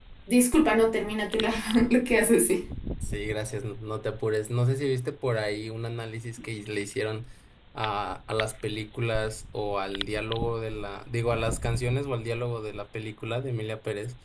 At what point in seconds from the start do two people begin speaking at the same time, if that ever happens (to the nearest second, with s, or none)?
none